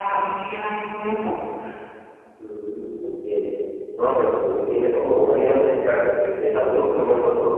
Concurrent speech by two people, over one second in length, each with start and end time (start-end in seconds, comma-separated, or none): none